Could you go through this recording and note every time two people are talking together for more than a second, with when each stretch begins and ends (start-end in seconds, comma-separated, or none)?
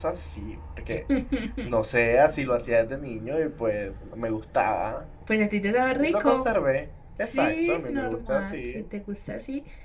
7.3-8.8